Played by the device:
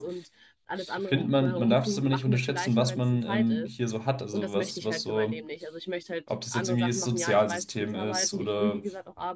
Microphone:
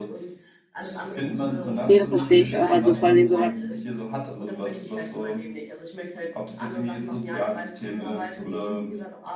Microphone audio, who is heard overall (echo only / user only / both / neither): both